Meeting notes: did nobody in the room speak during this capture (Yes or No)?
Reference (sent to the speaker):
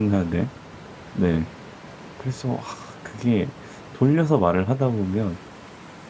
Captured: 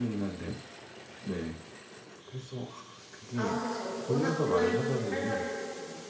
No